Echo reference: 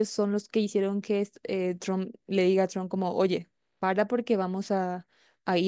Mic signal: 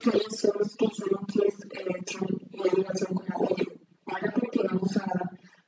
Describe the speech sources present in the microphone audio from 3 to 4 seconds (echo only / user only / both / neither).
echo only